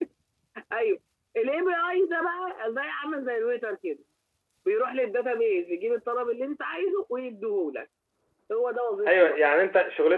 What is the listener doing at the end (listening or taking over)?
taking over